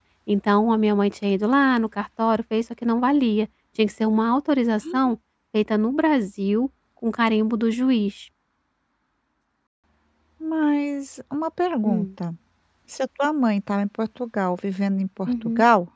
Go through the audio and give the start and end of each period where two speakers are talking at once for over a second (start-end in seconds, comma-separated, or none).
none